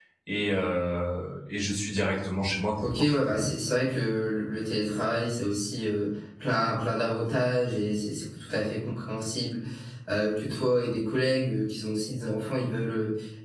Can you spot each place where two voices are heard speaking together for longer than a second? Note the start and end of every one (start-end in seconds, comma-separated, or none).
none